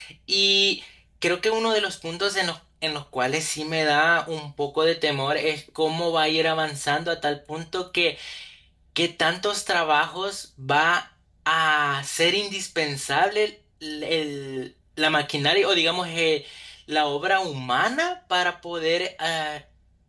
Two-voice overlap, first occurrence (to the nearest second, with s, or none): none